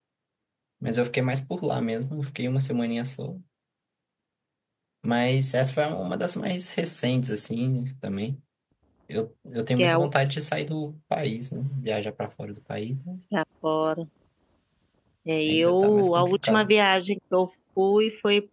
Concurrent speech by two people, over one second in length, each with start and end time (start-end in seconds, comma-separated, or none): 15.5-16.7